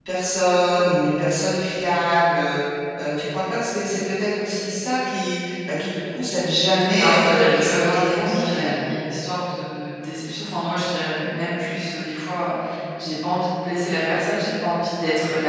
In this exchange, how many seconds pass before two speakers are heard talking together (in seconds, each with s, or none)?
6.8 s